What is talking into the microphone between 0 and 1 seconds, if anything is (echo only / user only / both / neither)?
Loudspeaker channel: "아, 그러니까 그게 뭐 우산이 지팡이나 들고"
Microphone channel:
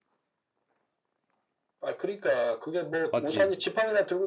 neither